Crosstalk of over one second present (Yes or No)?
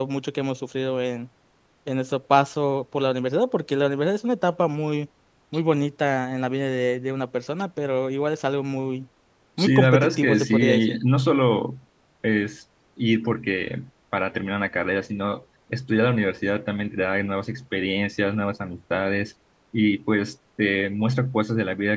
Yes